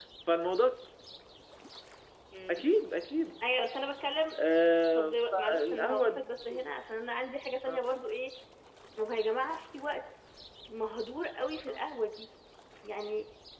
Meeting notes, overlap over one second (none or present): present